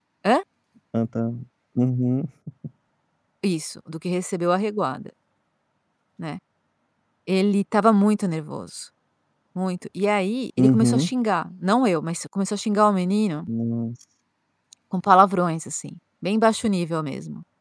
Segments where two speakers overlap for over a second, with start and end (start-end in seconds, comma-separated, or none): none